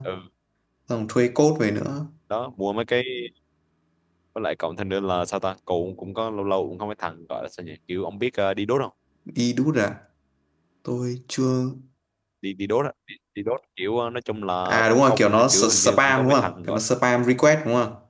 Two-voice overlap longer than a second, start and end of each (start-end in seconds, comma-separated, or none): 14.7-16.8